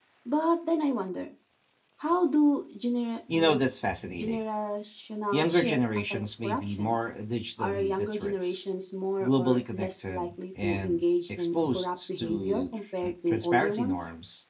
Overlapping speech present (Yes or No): Yes